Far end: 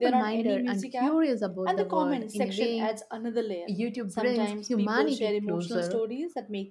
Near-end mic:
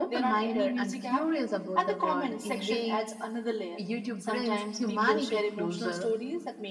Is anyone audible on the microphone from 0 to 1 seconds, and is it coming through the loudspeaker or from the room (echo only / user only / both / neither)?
echo only